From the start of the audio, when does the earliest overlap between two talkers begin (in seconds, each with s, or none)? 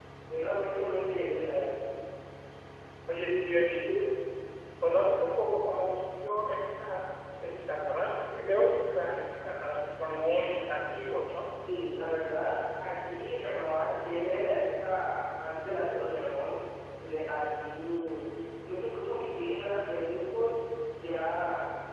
none